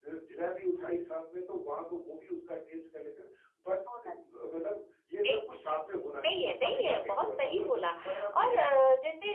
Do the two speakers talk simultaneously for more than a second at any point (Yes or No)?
Yes